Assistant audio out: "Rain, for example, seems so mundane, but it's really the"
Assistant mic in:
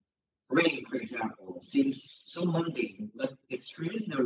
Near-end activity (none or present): none